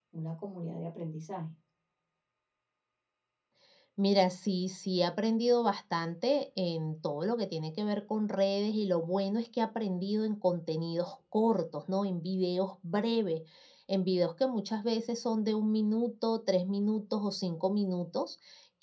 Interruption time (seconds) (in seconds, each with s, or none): none